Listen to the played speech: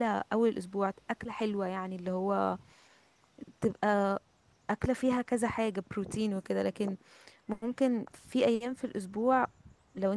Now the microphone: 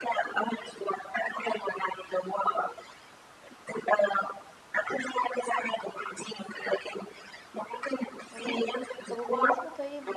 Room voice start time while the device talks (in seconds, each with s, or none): 8.3 s